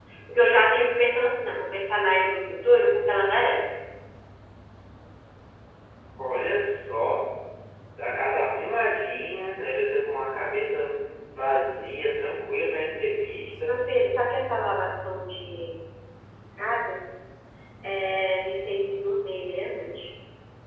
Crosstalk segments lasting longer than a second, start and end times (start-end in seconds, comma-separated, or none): none